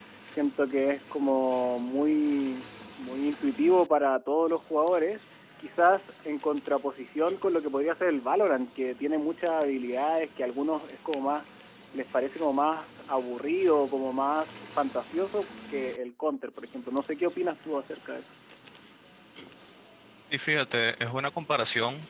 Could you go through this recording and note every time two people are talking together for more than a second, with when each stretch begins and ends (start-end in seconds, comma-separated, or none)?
none